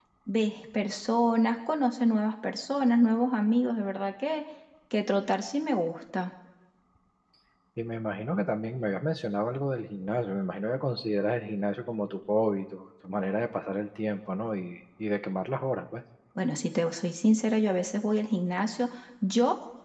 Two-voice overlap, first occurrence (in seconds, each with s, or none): none